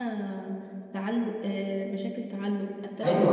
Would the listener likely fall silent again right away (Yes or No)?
No